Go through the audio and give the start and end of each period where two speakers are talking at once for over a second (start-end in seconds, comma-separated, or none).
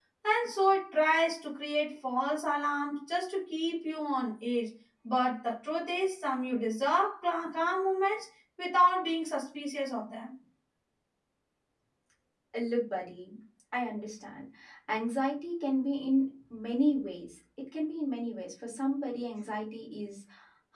none